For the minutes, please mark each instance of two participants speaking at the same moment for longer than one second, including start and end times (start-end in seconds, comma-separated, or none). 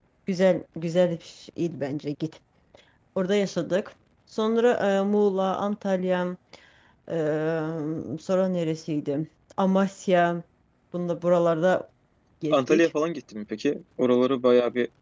none